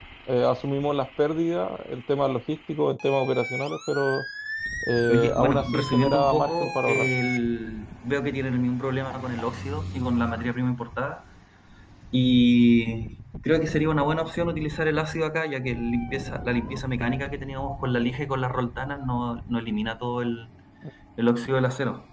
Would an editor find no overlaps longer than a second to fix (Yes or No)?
No